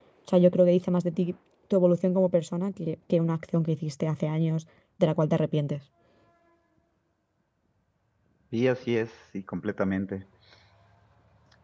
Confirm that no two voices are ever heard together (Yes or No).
Yes